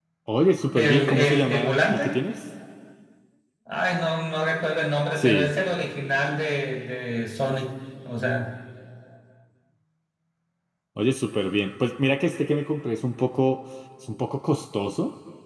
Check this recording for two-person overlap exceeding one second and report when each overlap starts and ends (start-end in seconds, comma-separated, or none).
0.8-2.2